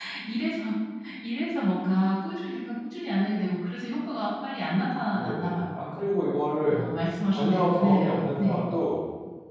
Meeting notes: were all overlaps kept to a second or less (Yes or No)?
No